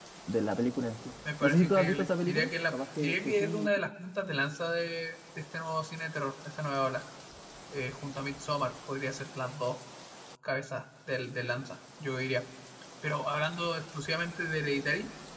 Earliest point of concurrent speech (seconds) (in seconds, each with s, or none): 1.2 s